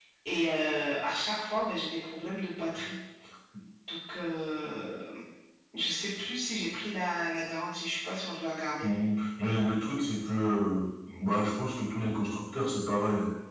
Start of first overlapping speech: none

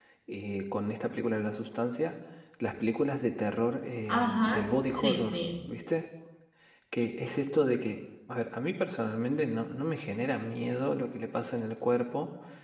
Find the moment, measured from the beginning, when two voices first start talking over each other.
4.1 s

